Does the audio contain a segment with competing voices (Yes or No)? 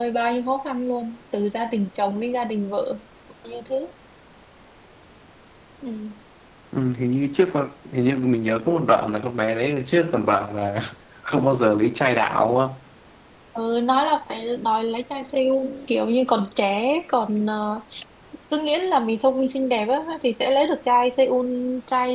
No